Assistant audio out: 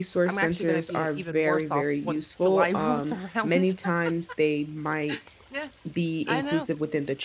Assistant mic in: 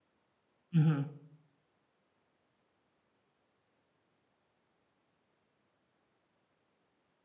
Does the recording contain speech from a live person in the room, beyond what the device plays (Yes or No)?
Yes